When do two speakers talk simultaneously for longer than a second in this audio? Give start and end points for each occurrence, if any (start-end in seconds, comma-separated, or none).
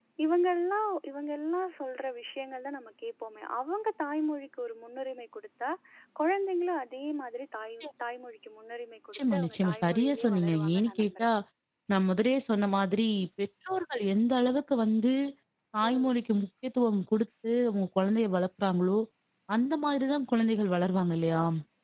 9.1-11.3